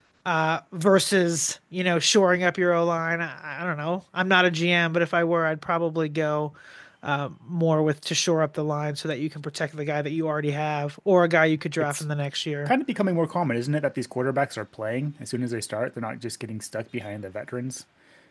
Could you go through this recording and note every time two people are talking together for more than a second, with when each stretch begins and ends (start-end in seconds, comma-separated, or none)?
none